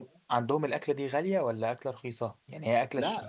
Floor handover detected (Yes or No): Yes